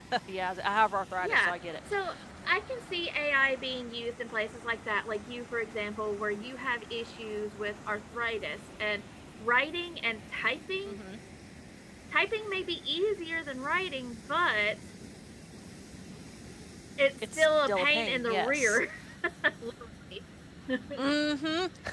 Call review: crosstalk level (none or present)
present